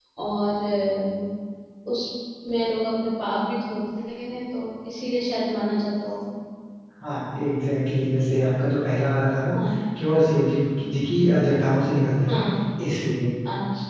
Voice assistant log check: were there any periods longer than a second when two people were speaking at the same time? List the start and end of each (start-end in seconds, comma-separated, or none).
none